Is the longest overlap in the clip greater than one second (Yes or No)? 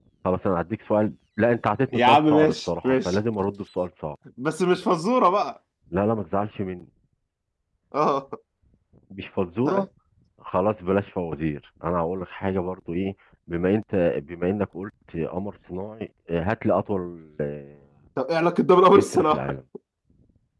Yes